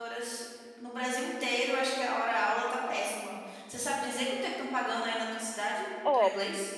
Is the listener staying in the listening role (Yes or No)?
No